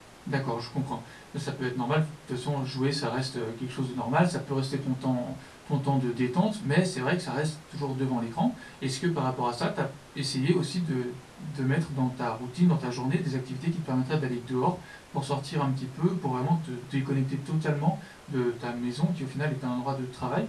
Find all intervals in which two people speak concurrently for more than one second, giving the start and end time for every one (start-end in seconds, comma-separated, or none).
none